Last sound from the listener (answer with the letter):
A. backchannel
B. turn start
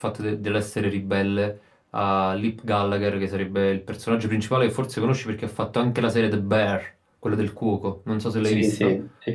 B